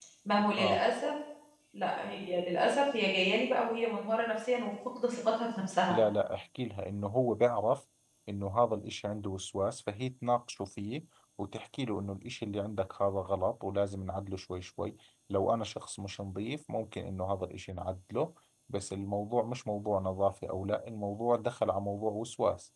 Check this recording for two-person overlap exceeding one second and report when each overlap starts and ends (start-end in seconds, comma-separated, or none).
none